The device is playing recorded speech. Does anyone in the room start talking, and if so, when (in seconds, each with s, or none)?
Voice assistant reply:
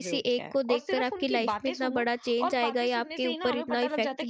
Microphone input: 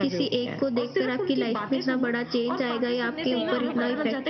3.2 s